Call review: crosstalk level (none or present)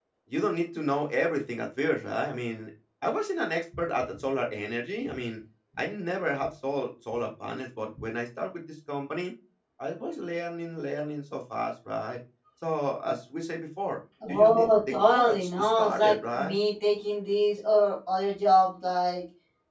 present